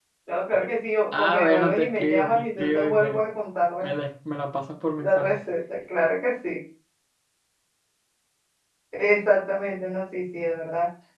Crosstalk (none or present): present